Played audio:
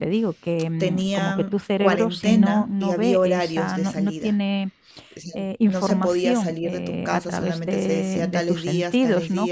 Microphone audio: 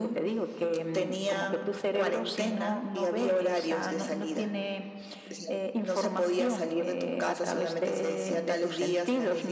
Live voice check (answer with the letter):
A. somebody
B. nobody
B